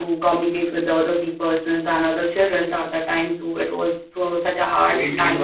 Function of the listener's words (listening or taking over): taking over